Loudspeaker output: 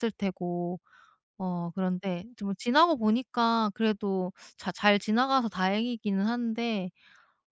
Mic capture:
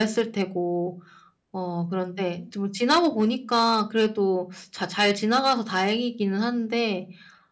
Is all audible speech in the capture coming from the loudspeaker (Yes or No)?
Yes